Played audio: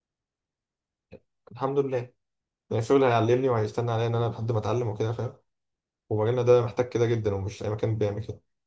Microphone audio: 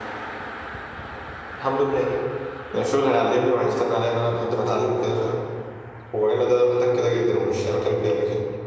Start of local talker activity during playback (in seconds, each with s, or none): none